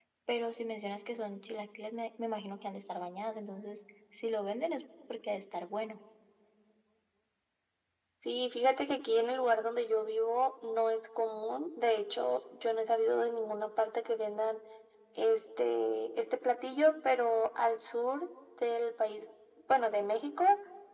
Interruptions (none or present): none